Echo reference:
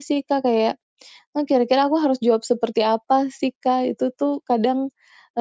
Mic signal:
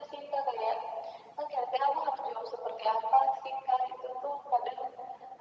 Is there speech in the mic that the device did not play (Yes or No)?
No